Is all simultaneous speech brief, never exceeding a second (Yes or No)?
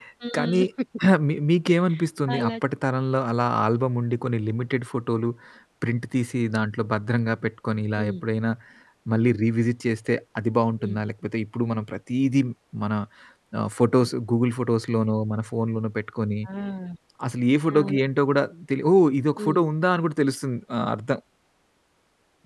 Yes